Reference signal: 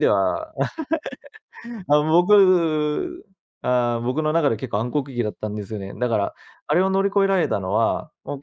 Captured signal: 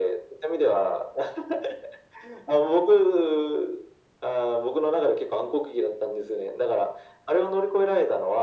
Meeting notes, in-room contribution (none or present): none